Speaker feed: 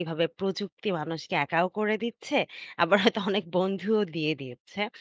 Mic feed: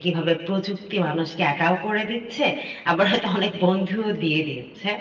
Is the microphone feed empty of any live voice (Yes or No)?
Yes